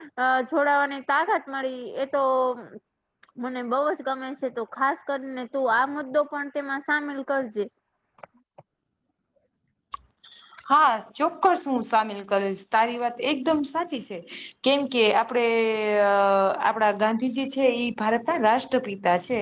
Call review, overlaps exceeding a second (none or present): none